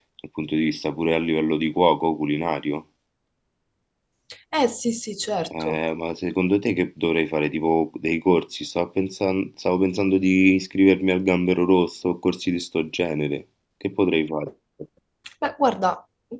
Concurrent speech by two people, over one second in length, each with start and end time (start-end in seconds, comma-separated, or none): none